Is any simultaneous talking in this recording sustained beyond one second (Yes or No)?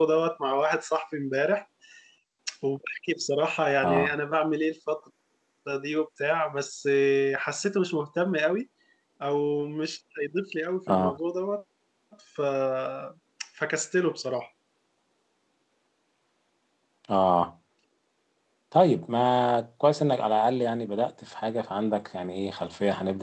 No